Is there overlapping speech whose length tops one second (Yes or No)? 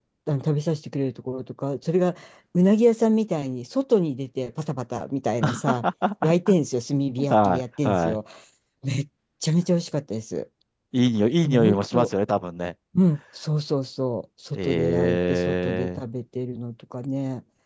Yes